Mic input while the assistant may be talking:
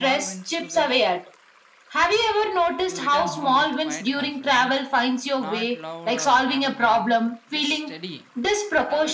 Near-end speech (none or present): present